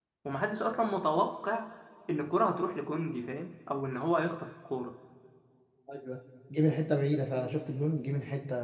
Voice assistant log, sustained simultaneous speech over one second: none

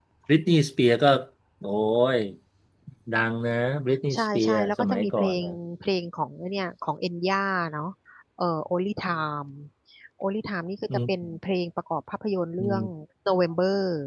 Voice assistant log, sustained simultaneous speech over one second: present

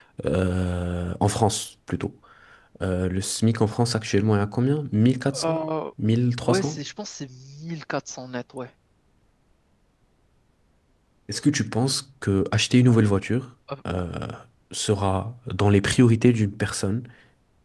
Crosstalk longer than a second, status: none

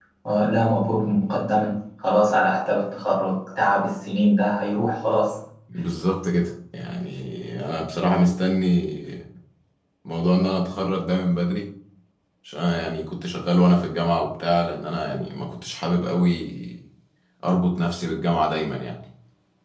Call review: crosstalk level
none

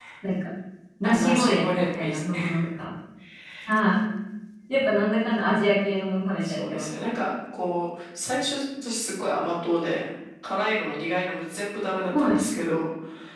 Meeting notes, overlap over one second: present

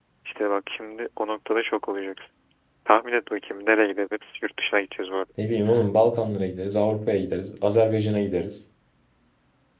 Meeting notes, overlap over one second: none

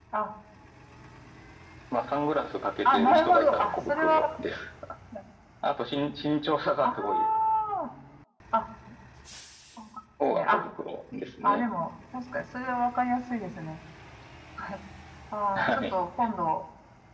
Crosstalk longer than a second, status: present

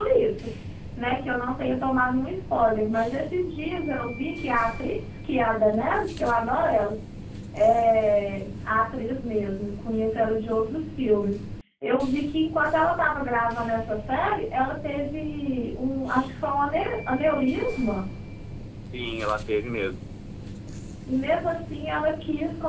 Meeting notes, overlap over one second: none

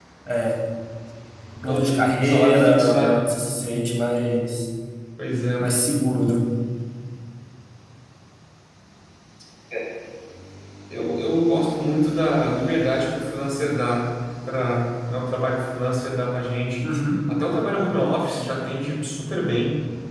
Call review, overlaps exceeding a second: present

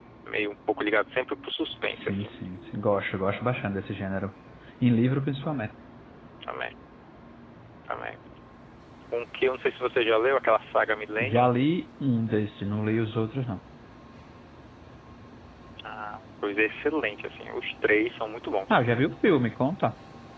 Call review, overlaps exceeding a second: none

